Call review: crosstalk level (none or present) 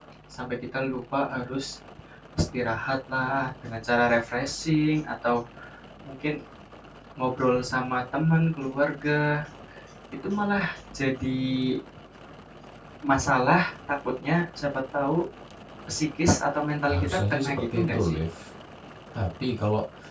present